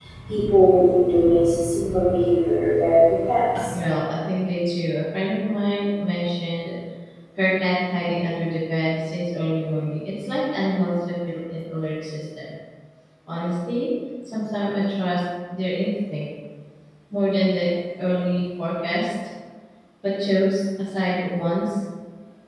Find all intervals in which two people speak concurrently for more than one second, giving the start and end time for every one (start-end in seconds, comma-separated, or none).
none